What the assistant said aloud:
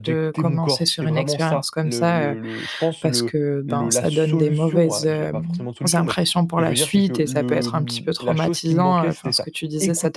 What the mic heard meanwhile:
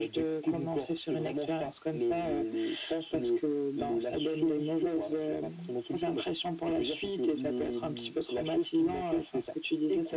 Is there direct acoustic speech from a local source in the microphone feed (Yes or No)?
No